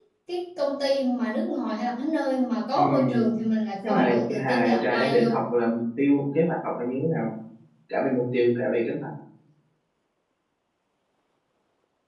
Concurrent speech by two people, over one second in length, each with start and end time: 3.9-5.4

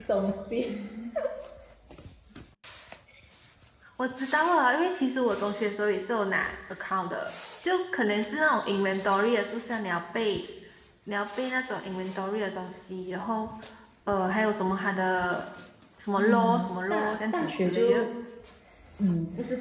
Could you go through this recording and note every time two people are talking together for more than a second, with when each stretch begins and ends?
16.1-18.1

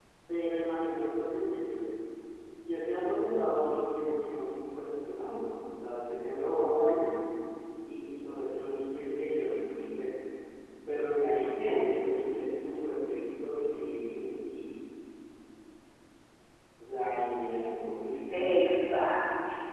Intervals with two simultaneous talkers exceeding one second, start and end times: none

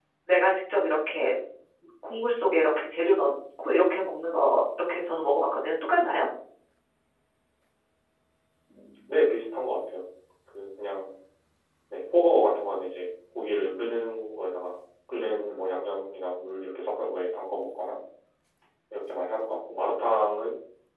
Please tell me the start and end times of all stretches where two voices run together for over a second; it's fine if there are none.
none

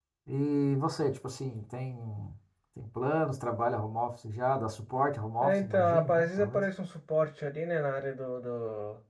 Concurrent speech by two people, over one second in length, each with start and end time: 5.4-6.6

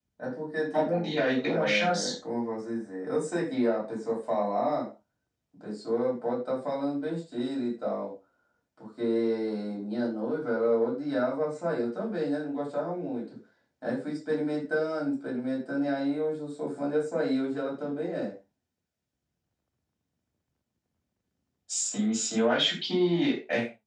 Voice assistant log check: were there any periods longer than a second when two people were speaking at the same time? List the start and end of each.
0.7-2.1

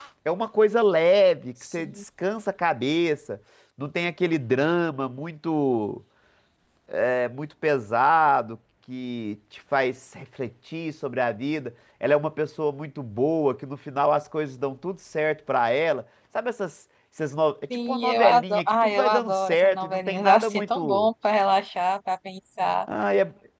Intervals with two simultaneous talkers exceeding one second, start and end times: 17.9-21.1

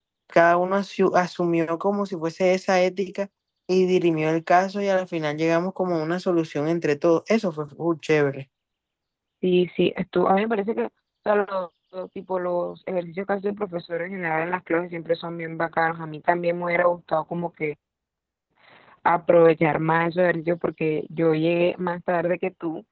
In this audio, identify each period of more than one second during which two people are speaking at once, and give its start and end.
none

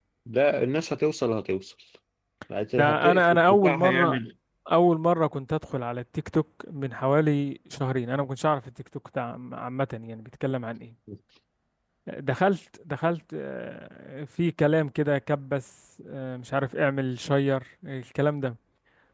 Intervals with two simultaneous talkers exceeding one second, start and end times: 2.8-4.2

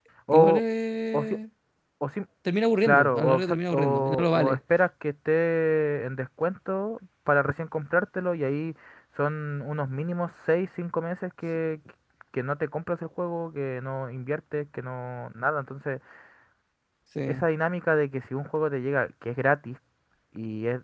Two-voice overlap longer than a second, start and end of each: 2.8-4.6

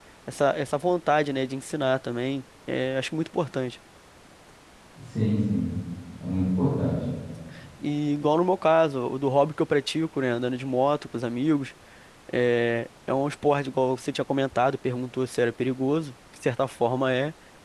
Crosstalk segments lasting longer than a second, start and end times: none

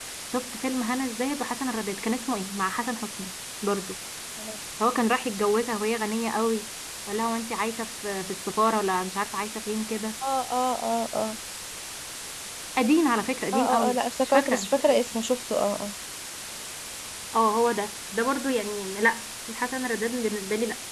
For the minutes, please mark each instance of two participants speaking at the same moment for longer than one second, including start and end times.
13.5-15.0

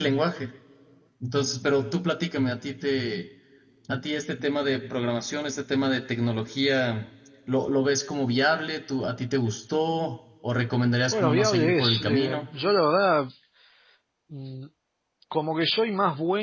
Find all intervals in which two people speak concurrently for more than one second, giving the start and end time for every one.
11.1-12.4

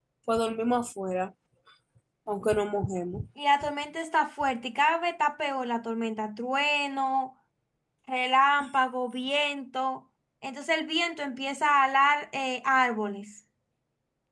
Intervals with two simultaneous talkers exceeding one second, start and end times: none

